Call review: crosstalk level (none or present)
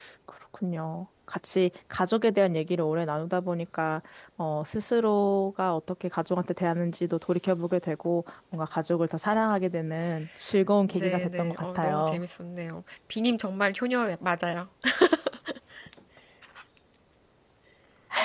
present